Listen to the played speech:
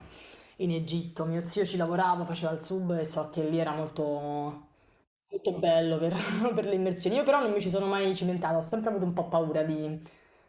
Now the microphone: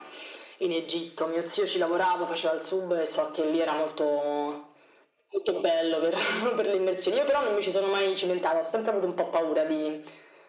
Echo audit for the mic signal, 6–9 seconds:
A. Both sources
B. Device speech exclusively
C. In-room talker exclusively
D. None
B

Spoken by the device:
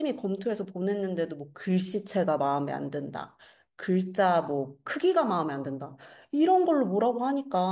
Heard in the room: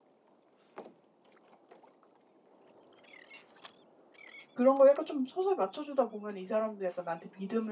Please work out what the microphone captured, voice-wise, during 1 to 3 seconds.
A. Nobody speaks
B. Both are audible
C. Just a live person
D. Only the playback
A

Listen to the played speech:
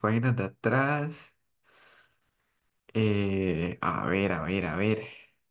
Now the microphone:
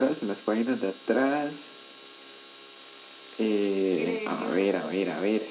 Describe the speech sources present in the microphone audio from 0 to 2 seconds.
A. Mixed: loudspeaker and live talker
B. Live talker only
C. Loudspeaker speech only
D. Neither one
C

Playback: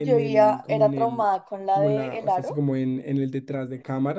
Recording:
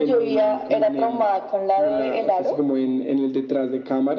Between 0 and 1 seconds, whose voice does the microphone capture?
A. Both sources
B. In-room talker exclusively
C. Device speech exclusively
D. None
C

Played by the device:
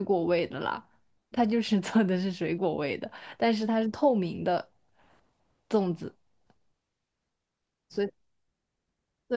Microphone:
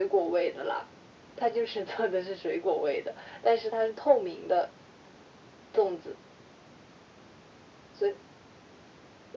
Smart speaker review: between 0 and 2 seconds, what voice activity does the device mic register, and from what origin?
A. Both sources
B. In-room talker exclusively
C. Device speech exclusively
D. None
C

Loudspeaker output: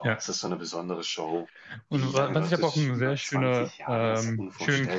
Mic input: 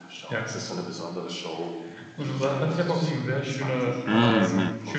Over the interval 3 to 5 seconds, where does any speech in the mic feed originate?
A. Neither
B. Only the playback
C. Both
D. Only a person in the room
C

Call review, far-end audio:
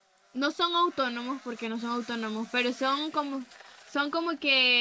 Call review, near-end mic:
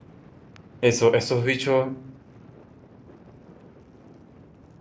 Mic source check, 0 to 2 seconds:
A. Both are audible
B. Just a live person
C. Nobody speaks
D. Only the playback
B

